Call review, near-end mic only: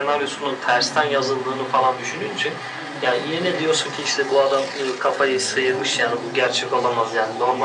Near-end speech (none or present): present